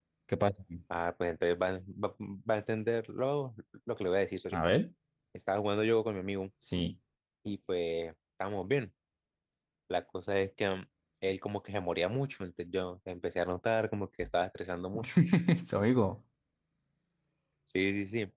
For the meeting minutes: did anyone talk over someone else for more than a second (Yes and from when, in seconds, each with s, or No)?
No